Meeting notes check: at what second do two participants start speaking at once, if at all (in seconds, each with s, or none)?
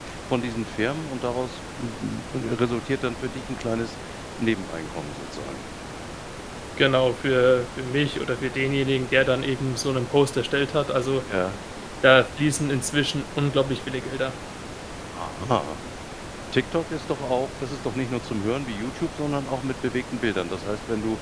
none